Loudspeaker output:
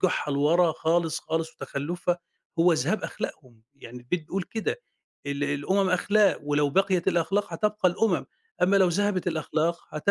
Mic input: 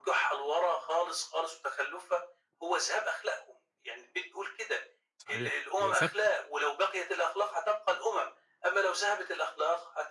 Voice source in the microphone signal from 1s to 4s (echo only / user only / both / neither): echo only